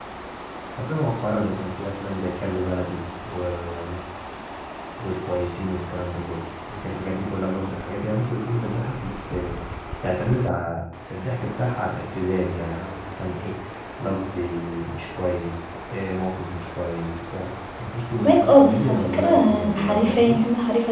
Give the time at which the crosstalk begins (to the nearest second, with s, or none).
18 s